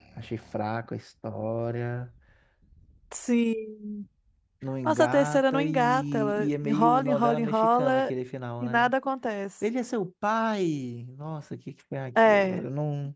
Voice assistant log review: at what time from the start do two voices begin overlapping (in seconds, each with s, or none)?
4.8 s